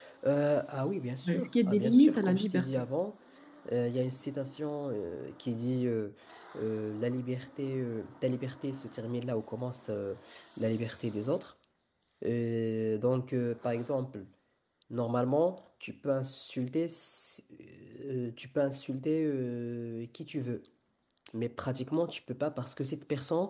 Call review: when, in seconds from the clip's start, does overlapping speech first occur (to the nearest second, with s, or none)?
1 s